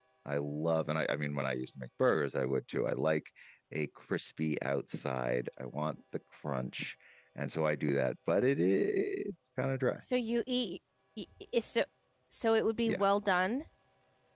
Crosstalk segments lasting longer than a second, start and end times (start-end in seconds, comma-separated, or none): none